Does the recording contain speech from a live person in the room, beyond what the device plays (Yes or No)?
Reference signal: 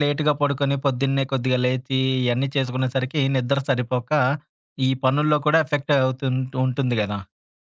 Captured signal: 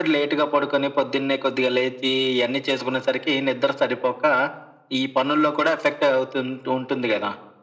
No